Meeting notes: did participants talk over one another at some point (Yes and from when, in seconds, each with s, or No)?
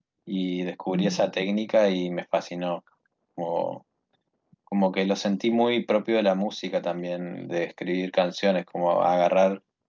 No